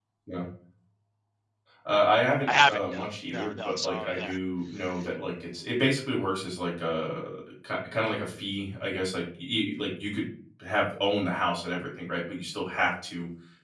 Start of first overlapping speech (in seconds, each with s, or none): 2.5 s